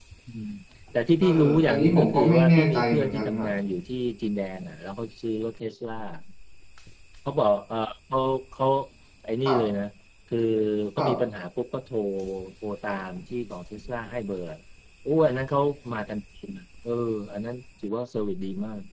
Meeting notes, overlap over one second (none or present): present